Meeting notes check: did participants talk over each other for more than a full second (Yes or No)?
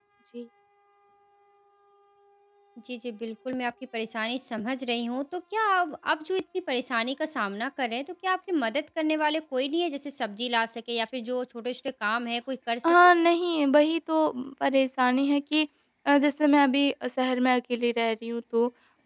No